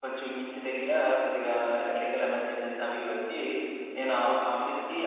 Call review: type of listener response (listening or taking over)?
listening